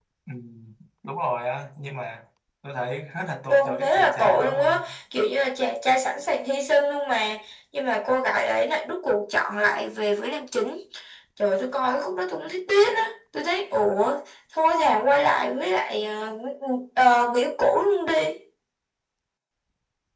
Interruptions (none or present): present